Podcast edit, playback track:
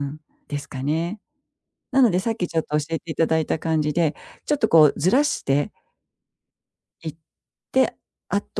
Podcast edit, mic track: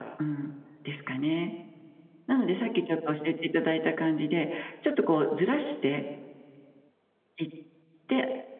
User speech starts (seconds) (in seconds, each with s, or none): none